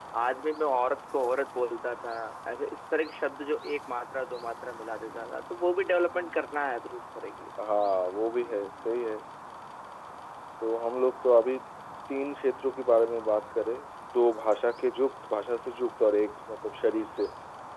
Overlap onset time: none

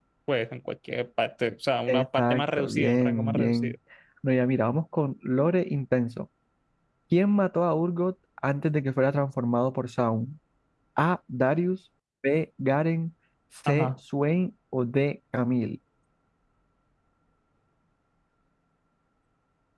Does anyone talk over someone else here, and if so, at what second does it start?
1.9 s

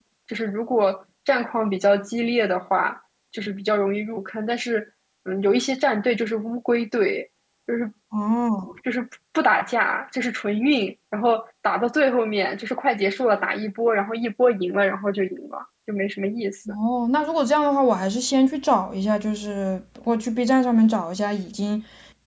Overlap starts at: none

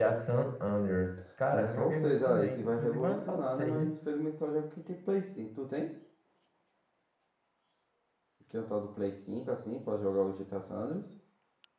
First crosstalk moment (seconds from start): 1.5 s

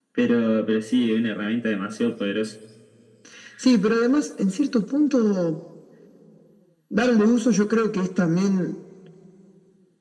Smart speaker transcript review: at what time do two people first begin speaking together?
none

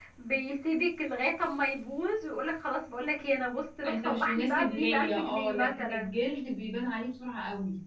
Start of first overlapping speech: 3.8 s

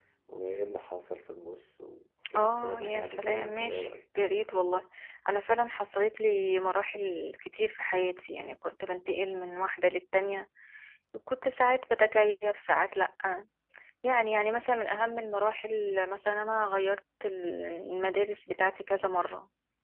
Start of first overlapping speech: 2.4 s

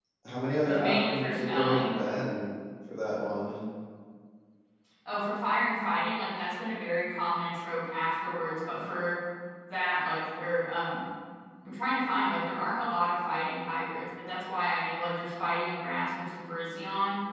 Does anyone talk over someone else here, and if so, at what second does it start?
0.7 s

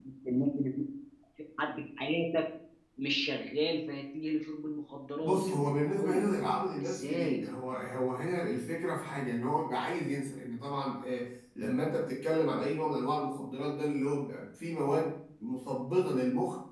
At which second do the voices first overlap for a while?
5.2 s

